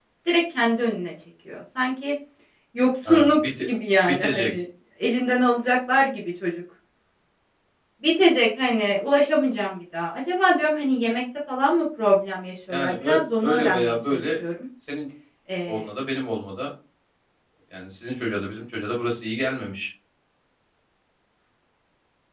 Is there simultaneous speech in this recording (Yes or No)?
Yes